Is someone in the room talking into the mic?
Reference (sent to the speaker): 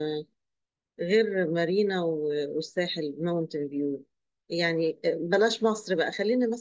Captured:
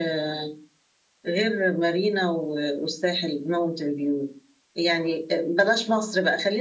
No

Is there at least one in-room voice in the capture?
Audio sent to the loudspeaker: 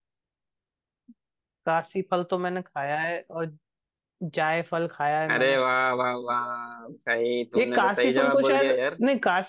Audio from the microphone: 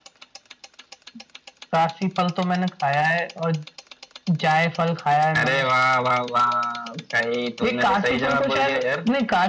No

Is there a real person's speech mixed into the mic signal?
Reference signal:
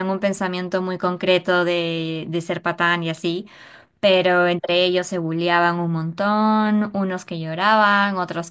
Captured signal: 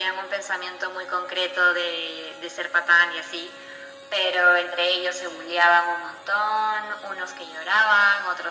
No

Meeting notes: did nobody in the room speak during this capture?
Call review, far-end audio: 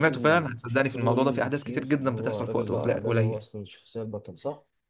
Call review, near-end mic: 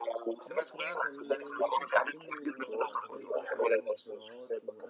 No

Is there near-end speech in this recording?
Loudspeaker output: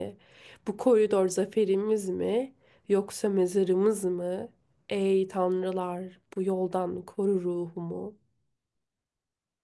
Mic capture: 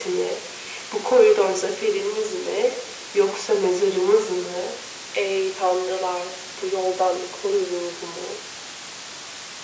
No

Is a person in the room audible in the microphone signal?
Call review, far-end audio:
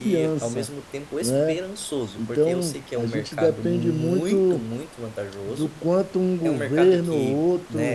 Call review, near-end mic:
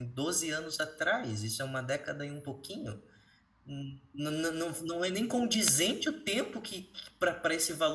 Yes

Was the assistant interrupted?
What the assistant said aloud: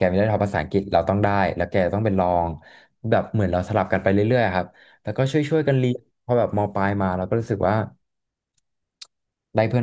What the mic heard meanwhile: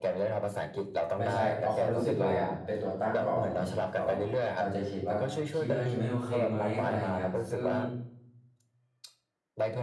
Yes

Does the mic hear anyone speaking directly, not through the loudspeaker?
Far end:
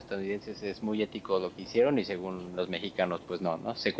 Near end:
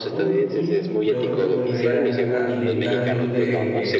Yes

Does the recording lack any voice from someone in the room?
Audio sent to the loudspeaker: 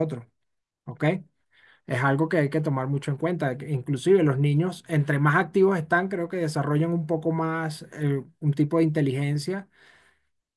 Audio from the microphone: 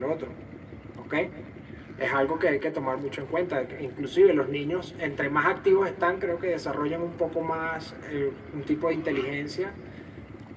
Yes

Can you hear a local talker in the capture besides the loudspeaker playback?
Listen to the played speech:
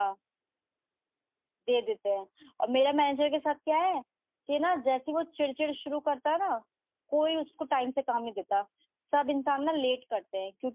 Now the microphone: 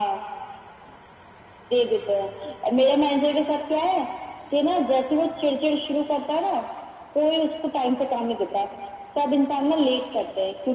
No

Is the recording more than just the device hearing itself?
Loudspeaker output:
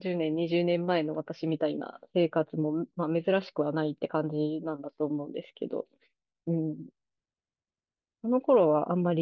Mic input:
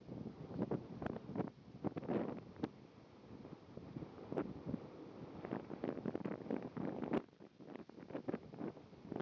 No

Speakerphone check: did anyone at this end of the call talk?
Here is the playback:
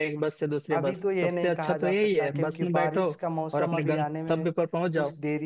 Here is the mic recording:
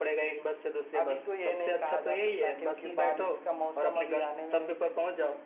No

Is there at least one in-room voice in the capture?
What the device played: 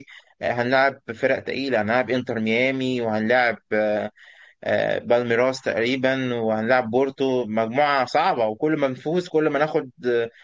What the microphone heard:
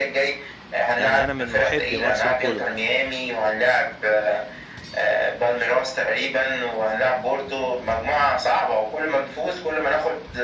Yes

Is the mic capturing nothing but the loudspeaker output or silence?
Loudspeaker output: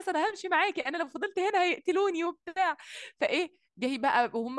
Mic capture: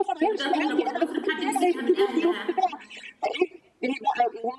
No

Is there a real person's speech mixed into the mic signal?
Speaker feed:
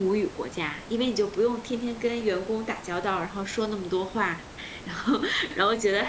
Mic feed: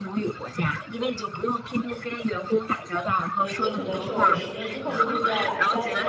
Yes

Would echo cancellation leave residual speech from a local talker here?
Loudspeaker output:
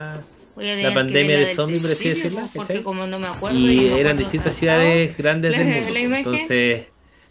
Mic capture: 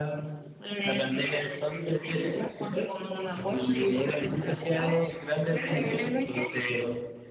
No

